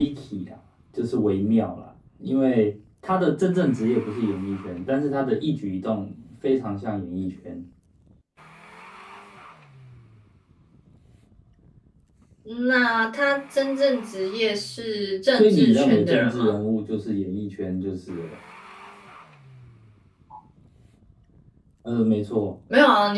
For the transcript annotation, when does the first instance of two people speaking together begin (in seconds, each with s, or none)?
15.3 s